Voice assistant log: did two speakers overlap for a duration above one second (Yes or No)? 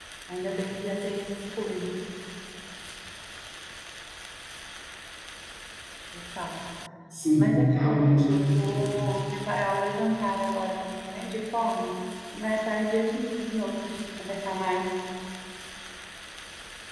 Yes